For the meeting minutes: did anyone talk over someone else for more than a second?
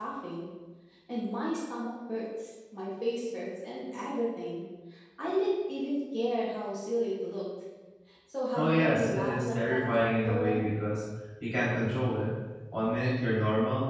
Yes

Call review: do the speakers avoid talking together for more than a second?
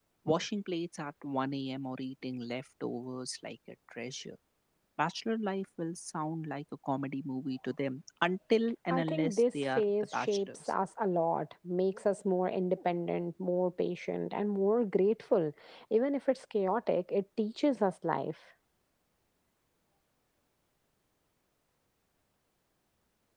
No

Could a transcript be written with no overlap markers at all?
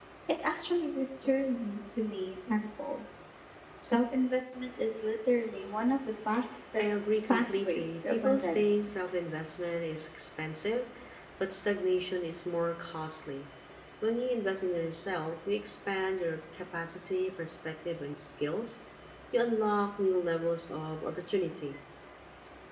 No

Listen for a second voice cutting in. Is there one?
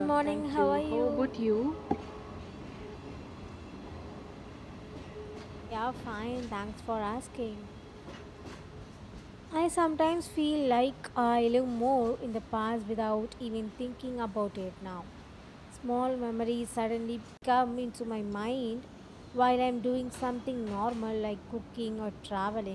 Yes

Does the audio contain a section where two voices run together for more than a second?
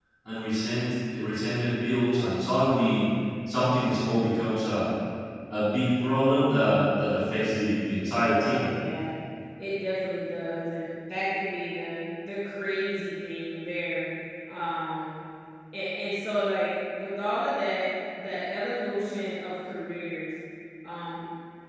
No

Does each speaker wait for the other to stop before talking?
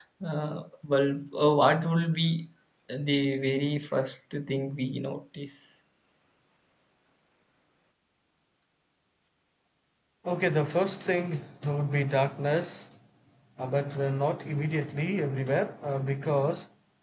Yes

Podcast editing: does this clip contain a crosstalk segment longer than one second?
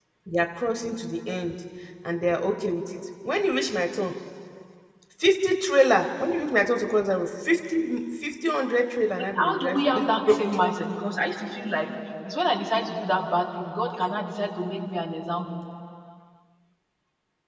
Yes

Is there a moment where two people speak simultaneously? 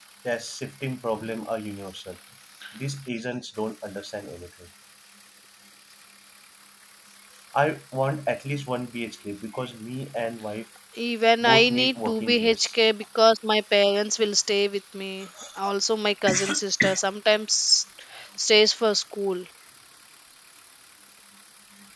Yes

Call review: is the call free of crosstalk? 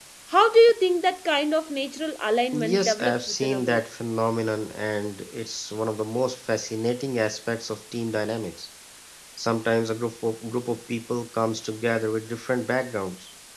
No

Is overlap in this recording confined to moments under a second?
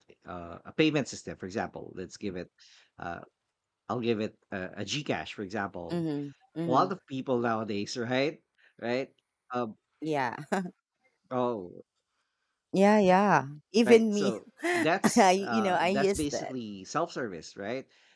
No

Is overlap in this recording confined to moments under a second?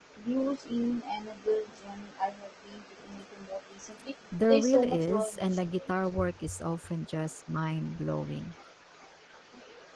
No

